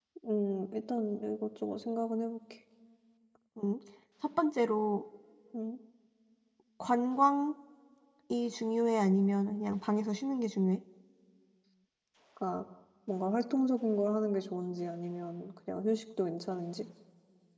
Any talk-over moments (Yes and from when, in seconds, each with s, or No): No